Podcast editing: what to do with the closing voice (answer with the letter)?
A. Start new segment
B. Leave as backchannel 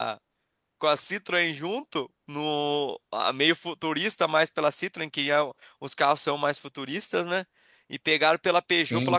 B